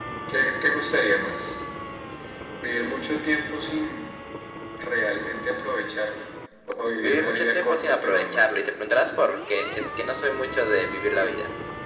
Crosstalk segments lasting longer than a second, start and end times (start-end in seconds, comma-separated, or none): 7.0-8.7